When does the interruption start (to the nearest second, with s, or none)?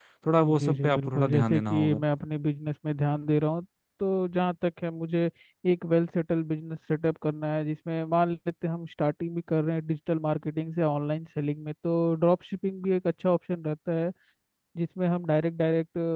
1 s